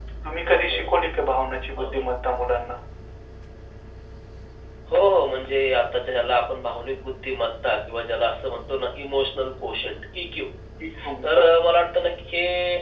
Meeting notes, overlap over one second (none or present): none